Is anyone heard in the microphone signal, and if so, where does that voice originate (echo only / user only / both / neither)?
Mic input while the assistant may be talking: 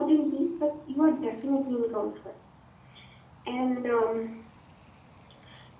echo only